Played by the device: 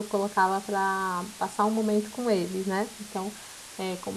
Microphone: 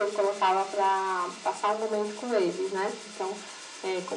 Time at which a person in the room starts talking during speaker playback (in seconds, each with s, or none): none